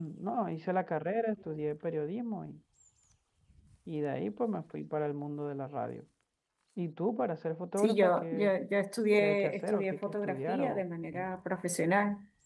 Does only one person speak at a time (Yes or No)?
No